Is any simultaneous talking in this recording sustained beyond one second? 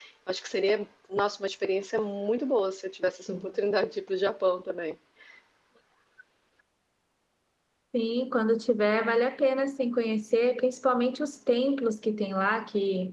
No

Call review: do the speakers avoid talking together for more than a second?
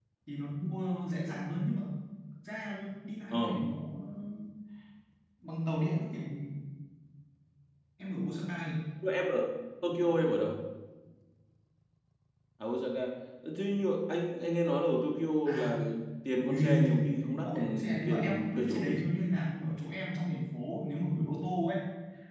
No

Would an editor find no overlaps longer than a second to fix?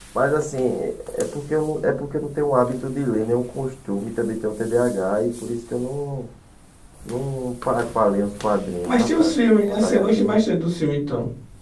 No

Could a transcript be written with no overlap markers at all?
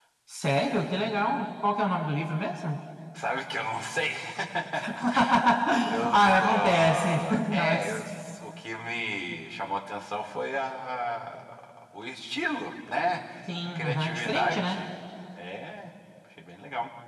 No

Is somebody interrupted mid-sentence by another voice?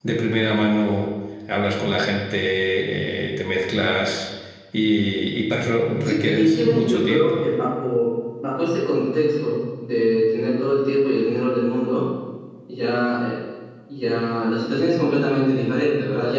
Yes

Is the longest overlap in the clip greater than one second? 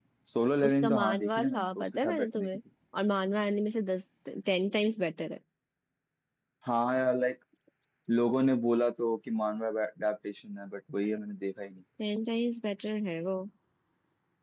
Yes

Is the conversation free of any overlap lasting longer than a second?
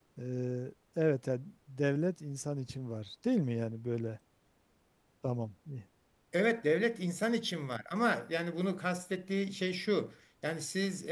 Yes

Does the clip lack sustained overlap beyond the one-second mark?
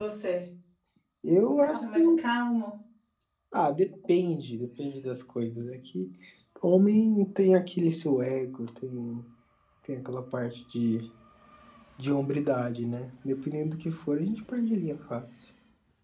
Yes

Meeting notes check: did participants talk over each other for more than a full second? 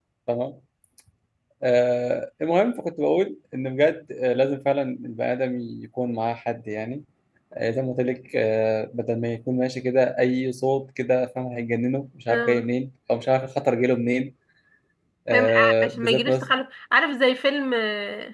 Yes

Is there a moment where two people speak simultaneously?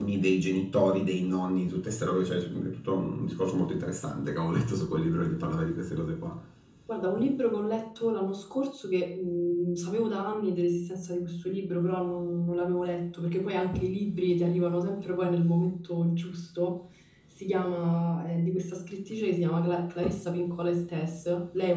No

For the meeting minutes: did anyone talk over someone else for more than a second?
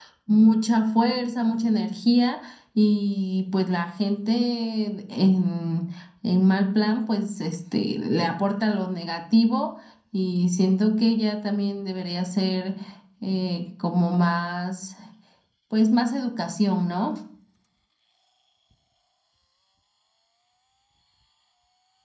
No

